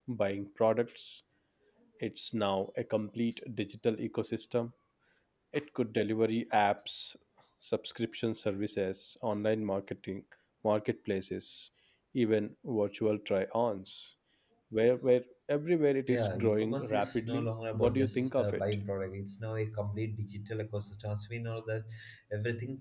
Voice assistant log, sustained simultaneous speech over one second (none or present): present